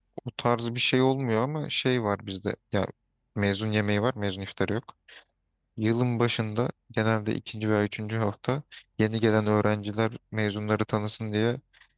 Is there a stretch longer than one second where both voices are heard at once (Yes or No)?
No